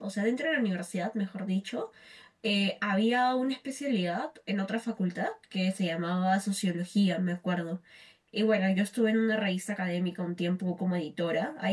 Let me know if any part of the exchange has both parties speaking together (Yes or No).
No